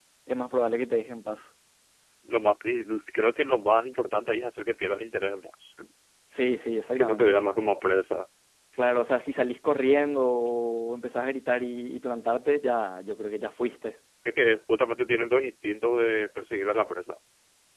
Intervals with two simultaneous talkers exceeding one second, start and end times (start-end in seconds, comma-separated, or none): none